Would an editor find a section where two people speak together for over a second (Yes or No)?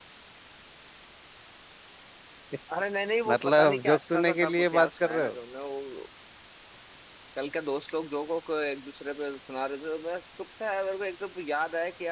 Yes